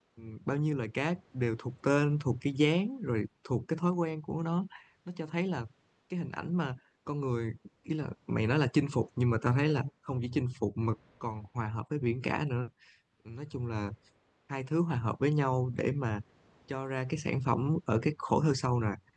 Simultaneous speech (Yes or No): No